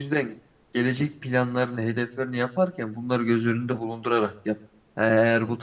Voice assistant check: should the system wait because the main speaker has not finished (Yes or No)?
Yes